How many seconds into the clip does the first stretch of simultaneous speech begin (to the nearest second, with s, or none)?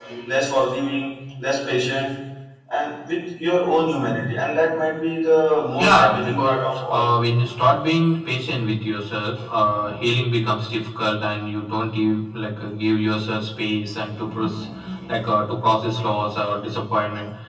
6 s